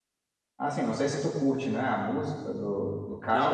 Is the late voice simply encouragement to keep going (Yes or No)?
No